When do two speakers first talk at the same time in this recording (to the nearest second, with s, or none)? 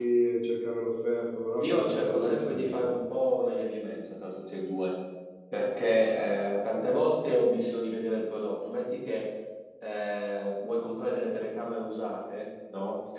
2 s